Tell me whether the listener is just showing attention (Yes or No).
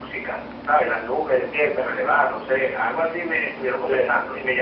Yes